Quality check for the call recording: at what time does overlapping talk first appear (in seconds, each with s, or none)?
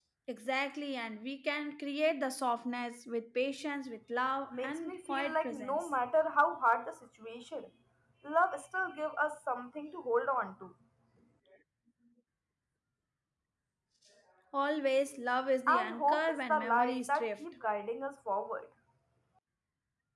4.5 s